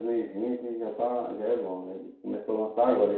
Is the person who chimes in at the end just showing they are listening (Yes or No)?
Yes